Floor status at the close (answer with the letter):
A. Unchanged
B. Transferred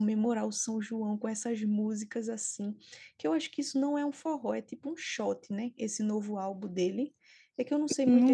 B